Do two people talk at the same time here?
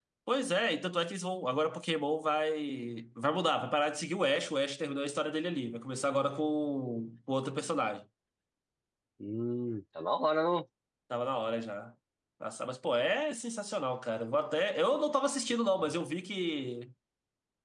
No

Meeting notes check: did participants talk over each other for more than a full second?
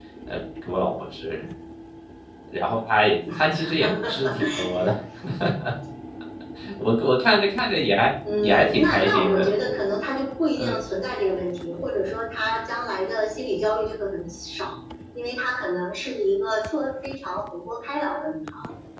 Yes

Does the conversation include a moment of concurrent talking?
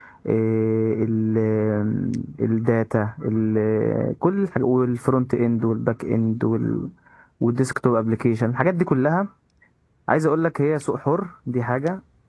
No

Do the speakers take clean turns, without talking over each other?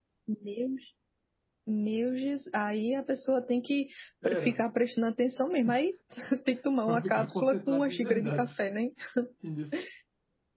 No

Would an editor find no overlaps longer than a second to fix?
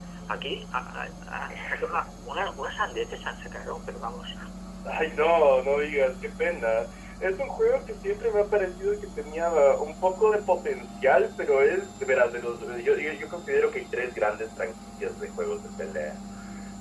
Yes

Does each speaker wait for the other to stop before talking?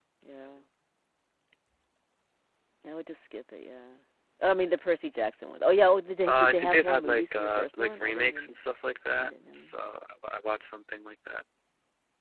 No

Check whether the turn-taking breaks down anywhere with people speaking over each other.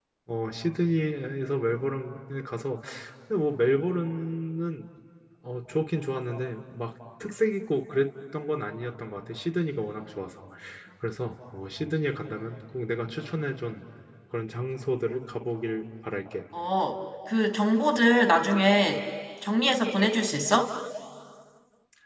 No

